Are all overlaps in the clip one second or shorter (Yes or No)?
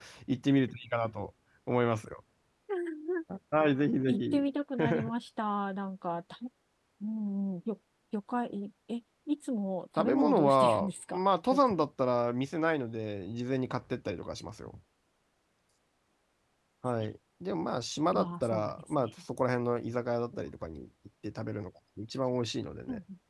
No